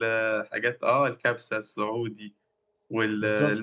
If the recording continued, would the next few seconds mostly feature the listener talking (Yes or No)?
No